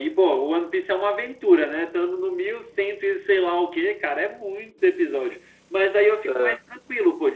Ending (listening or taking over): listening